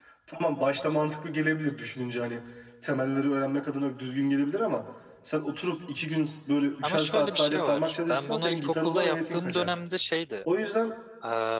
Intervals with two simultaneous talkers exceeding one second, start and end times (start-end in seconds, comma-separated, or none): 6.8-9.7